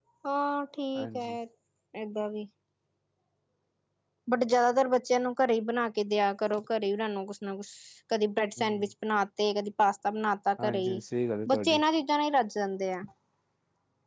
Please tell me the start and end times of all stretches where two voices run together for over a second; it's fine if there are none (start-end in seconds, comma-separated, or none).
none